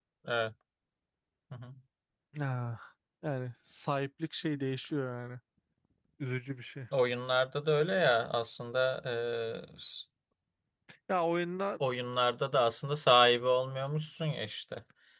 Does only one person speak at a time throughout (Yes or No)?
Yes